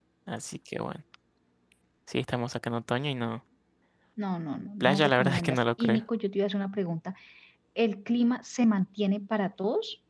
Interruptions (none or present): present